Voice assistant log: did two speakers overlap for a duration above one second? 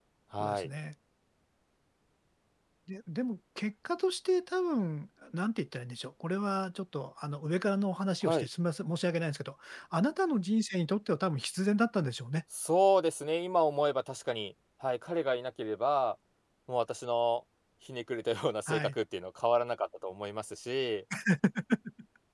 No

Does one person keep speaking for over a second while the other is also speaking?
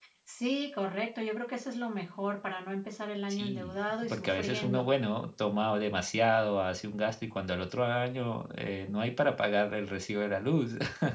Yes, from 3.3 s

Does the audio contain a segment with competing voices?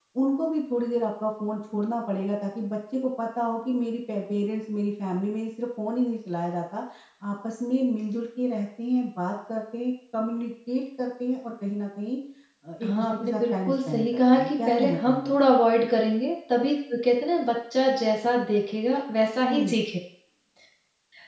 Yes, from 12.8 s

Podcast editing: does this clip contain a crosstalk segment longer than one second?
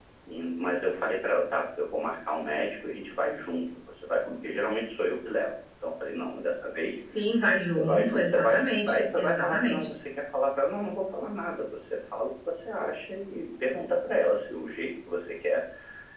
Yes, from 7.7 s

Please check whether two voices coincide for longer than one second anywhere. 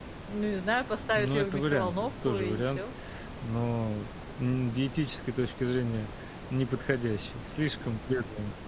Yes, from 1.1 s

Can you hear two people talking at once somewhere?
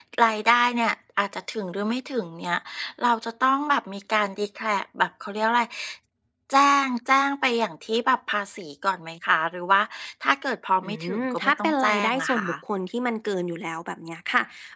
Yes, from 10.8 s

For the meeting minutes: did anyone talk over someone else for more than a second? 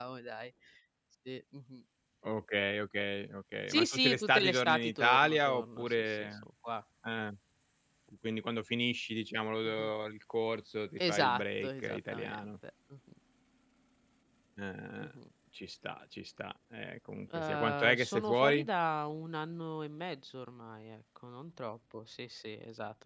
Yes, from 3.7 s

